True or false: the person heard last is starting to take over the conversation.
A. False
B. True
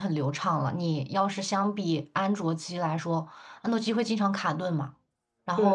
B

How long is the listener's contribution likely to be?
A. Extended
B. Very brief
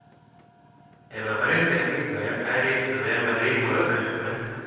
B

